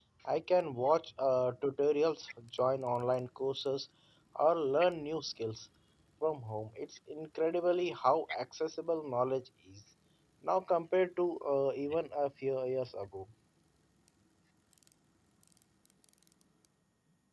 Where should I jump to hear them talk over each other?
none

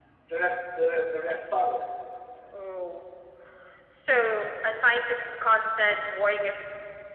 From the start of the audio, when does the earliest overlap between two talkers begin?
none

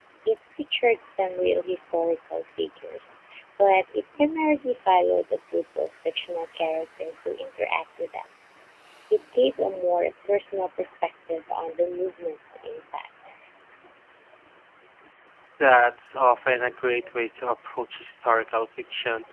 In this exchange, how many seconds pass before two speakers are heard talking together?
none

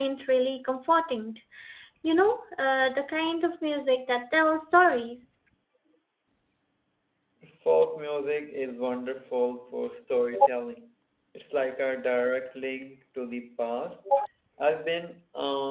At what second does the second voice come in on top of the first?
none

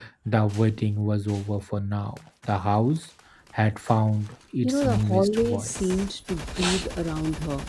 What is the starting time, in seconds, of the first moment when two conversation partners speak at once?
4.6 s

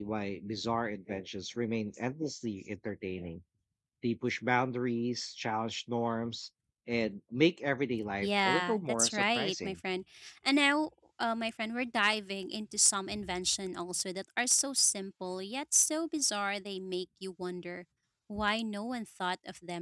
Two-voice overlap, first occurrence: 8.2 s

